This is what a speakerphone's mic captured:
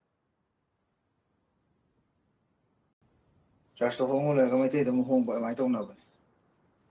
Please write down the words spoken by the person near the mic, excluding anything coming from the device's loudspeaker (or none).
ꯀ꯭ꯂꯥꯁꯇ ꯍꯣꯡꯍꯜꯂꯒꯩꯇꯩꯗ ꯑꯃꯨꯛ ꯍꯣꯡꯕ ꯑꯗꯨꯃꯥꯏꯅ ꯇꯧꯅꯕꯅꯦ